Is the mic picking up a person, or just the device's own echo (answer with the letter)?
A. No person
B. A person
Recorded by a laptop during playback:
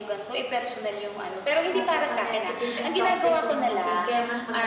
B